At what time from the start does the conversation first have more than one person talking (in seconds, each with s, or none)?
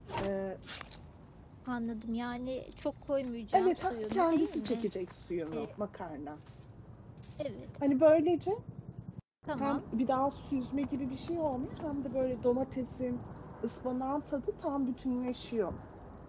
3.5 s